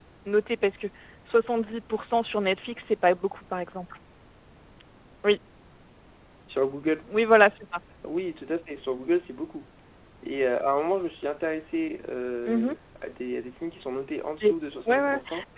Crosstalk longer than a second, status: none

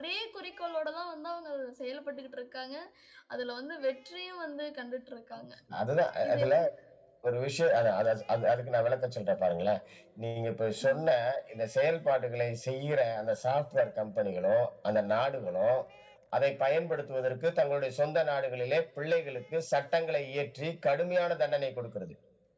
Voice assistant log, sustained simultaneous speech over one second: none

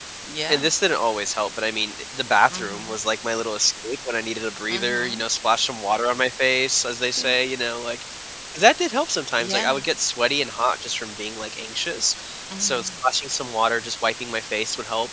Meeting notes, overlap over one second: none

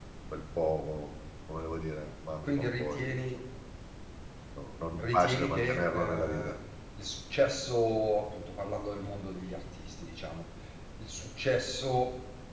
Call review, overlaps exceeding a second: present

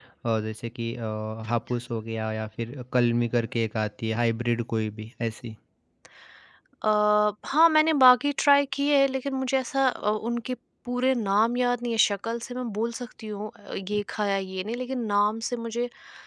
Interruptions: none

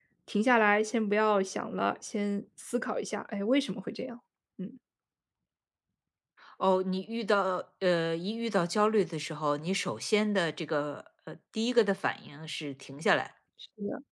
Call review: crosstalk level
none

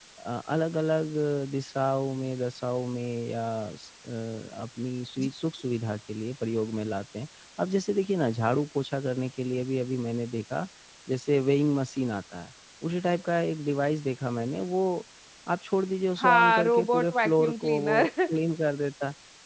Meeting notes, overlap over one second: present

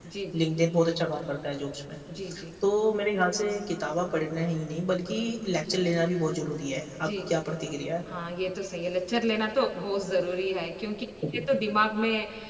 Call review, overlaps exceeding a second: none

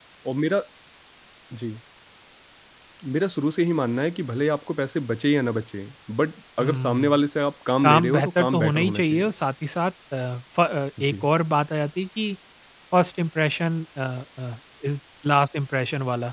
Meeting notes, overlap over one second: present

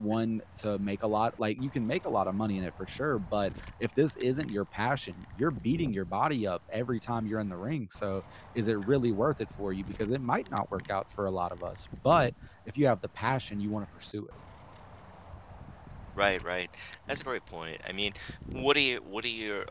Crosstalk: none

